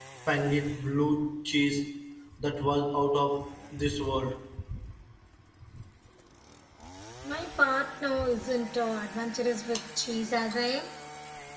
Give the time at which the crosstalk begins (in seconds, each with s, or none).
none